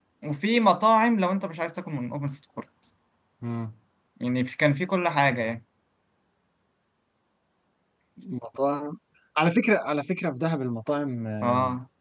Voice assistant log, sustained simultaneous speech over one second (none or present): none